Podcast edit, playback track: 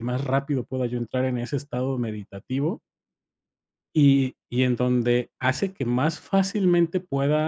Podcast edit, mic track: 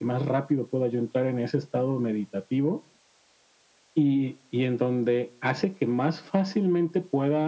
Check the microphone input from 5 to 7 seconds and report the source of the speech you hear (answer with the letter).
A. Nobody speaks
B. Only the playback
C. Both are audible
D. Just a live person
B